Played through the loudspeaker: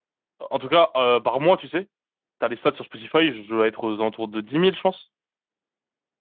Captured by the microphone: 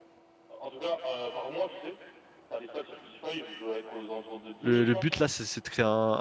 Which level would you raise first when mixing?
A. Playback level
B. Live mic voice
A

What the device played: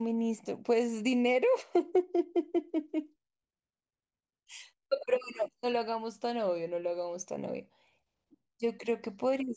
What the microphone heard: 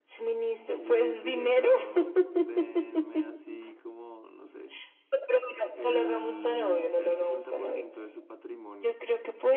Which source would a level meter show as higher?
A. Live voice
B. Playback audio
B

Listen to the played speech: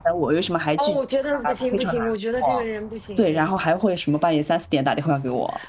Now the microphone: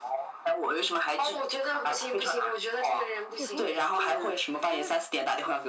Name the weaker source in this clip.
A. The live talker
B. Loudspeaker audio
A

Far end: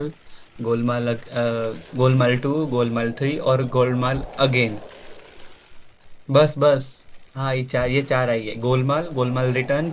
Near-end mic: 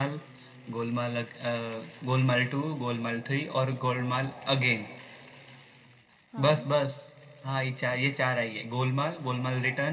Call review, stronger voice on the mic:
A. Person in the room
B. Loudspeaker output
B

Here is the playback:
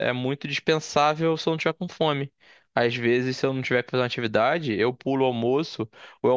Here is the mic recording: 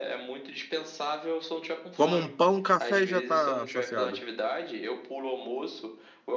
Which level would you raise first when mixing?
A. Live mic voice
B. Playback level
B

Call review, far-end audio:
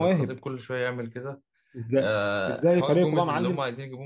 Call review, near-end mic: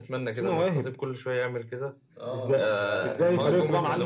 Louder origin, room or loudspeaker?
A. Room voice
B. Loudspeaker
B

